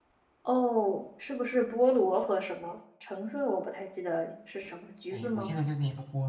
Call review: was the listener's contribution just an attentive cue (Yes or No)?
No